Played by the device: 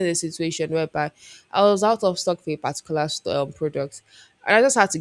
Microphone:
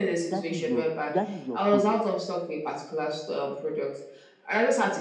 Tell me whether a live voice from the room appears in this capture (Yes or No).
Yes